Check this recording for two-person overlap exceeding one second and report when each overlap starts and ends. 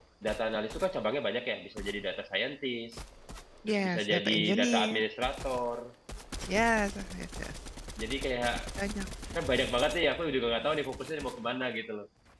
3.7-5.0

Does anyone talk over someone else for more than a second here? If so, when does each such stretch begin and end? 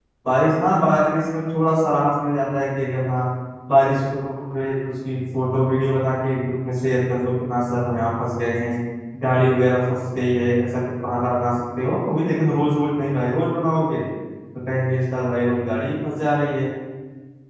none

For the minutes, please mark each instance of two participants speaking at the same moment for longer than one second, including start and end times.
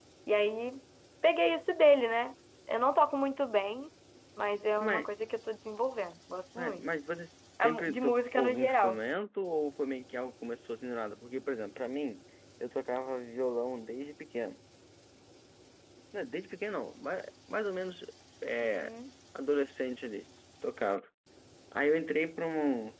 7.6-9.0

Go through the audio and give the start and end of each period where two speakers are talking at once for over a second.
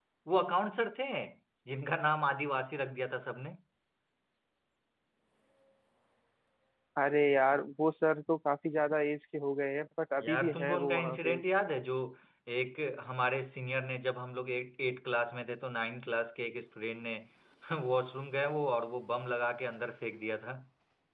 10.2-11.4

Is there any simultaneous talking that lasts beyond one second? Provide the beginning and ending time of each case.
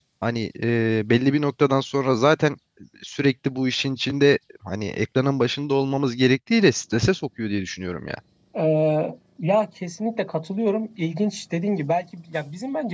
none

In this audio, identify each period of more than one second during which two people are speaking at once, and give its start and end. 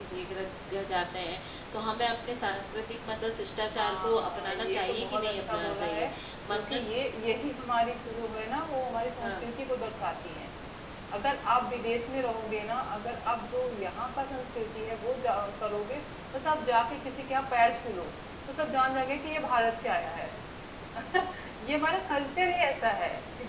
3.8-6.1

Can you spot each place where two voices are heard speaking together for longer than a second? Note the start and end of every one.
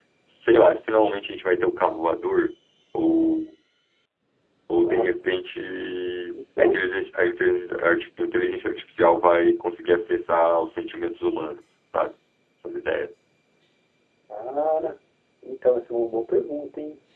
none

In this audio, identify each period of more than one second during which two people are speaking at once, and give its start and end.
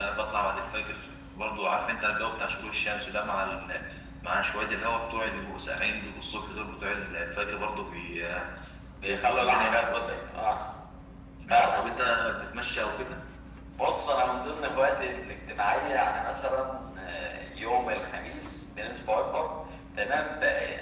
9.0-10.4

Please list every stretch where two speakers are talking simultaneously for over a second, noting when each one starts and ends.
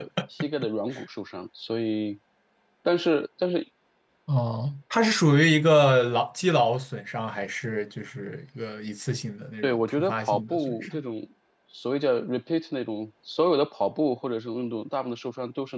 9.6-11.0

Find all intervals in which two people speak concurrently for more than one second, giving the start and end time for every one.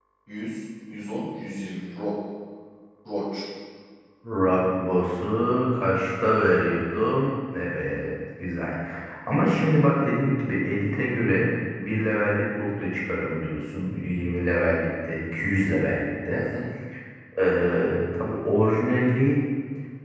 none

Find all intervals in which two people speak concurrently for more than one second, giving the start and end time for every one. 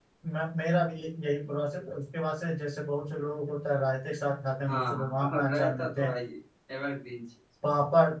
4.7-6.1

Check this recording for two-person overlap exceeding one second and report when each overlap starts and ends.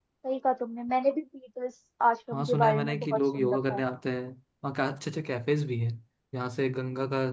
2.3-3.8

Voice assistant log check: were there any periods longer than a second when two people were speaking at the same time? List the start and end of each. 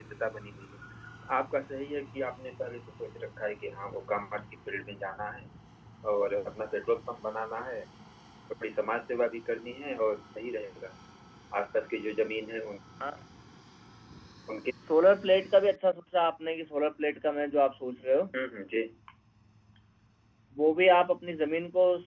none

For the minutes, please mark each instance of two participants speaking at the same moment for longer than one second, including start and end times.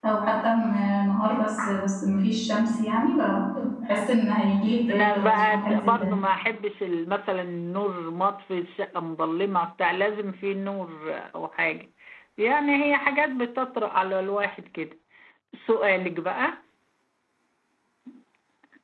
4.9-6.1

